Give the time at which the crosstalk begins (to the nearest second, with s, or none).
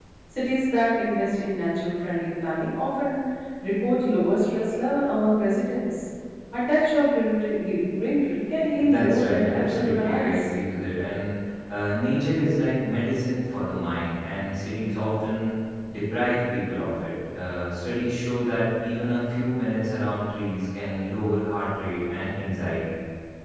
9 s